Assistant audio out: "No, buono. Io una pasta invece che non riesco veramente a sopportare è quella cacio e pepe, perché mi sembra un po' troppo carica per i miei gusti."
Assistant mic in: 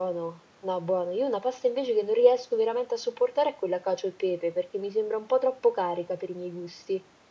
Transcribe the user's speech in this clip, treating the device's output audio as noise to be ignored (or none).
none